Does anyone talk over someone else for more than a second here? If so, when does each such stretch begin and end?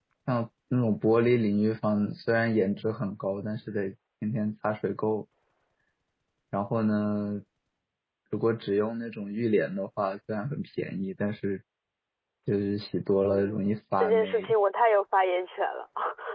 13.2-14.5

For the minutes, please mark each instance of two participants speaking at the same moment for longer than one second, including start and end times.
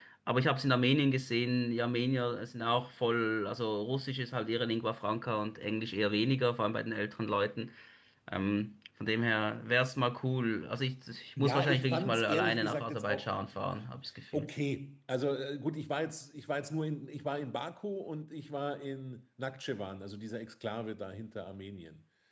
11.4-13.3

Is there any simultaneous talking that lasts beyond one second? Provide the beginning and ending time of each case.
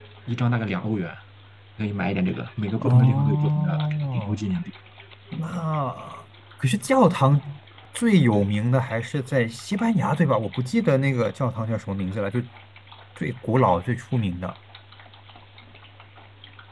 2.8-4.4

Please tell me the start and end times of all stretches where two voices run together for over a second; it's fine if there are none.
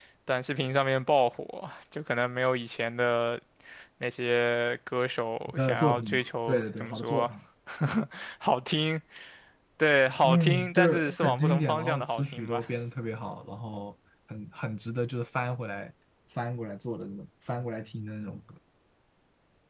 5.5-7.3, 10.2-12.6

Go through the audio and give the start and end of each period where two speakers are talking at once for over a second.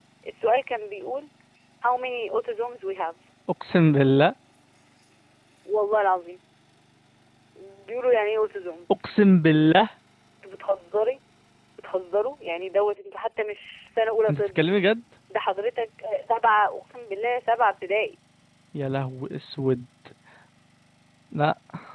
none

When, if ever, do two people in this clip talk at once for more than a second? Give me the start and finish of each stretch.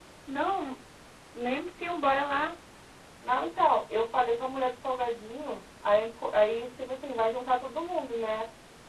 none

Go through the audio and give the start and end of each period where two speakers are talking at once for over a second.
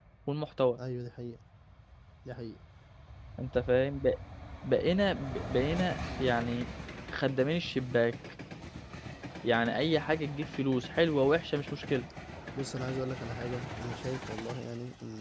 none

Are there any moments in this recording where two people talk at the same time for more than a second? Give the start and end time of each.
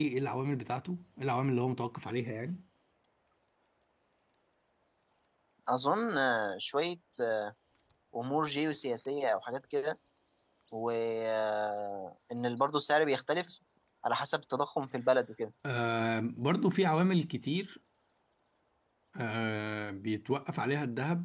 none

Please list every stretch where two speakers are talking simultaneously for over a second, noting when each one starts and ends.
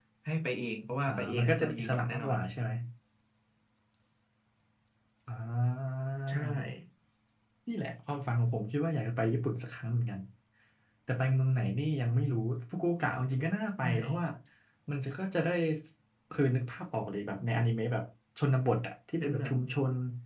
1.1-2.4

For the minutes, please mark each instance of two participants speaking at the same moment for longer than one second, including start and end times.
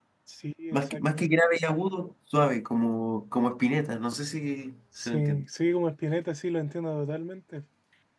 none

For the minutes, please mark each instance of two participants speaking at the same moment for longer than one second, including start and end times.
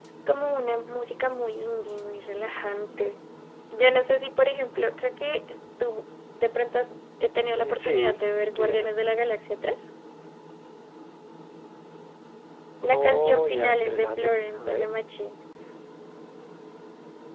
7.5-8.9, 12.9-14.9

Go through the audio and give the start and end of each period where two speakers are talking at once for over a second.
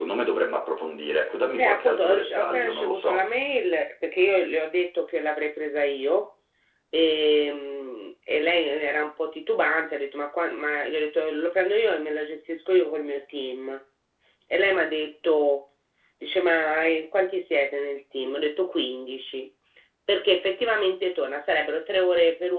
1.6-3.2

